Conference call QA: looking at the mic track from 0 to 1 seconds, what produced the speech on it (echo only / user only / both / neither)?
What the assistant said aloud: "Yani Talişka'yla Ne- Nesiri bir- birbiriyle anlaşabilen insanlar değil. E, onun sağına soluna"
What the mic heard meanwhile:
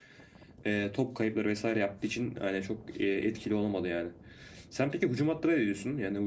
user only